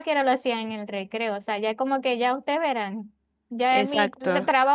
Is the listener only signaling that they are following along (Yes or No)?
Yes